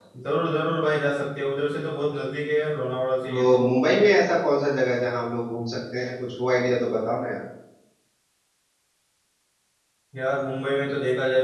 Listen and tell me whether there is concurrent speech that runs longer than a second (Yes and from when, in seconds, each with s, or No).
No